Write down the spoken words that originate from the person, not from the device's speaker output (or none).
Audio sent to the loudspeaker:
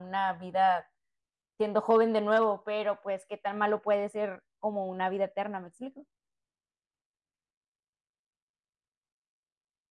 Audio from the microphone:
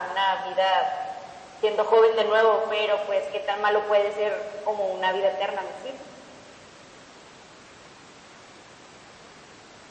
none